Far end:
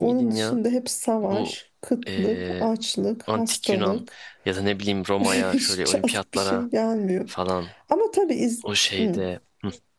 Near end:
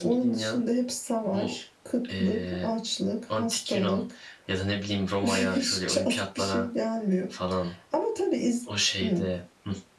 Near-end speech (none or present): none